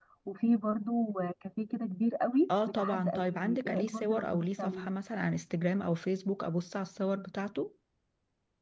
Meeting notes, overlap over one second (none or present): present